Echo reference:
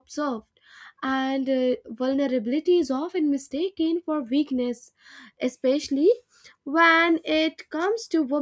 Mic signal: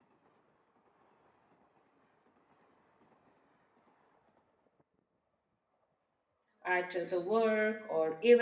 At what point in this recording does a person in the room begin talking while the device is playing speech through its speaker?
7 s

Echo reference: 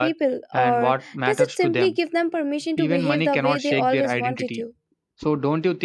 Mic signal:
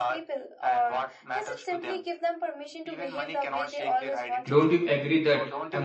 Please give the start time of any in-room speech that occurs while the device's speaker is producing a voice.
4 s

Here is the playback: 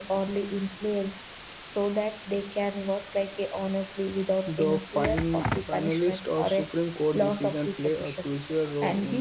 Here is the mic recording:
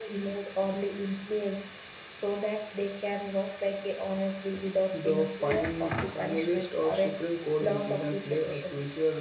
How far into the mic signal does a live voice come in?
none

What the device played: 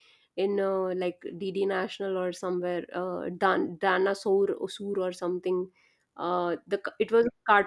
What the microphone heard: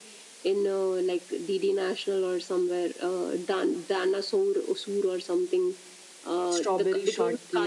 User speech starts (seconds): 6 s

